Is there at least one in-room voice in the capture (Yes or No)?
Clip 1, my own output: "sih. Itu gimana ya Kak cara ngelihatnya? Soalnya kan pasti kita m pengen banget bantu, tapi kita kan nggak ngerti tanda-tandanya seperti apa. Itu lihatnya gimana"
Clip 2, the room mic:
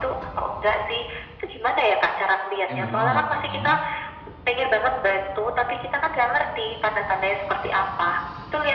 Yes